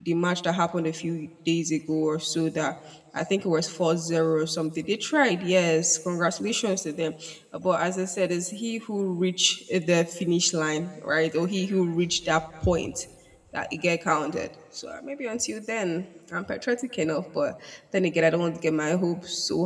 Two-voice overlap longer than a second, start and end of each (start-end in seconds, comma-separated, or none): none